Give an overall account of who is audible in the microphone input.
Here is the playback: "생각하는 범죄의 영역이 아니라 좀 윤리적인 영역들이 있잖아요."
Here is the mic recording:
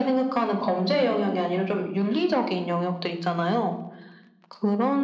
echo only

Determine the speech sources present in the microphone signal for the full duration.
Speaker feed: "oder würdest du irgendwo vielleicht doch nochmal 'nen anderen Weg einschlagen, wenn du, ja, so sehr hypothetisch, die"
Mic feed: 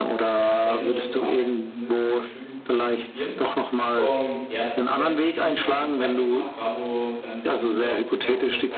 both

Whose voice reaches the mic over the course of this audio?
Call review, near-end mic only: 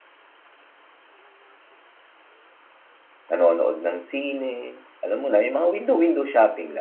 user only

